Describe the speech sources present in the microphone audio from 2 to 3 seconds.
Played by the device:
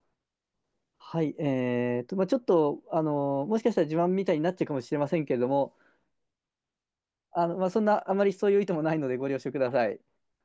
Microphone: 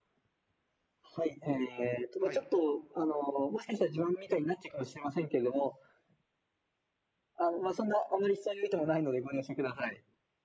both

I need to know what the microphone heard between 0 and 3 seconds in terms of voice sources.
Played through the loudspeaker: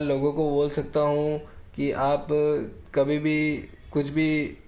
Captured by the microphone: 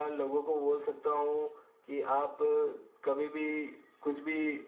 echo only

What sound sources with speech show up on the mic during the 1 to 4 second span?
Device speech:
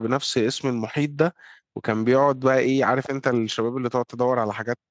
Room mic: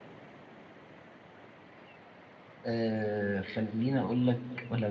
user only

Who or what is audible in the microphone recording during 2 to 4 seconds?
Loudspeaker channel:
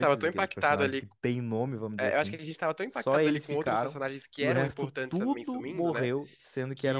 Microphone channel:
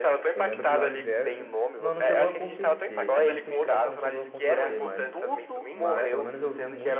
both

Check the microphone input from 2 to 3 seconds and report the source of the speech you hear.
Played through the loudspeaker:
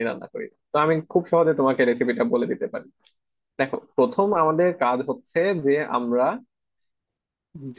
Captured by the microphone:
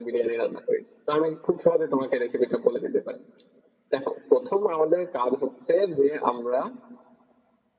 echo only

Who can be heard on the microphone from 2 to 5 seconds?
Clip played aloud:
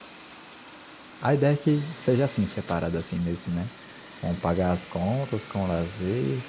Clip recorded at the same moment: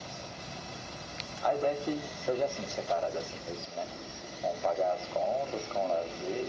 echo only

